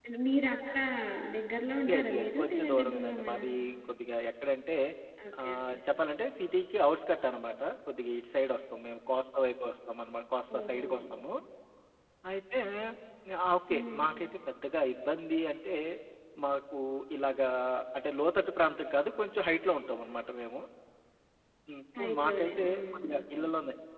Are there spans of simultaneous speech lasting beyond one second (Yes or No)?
Yes